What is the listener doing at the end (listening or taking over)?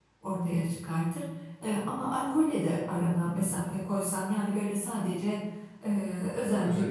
listening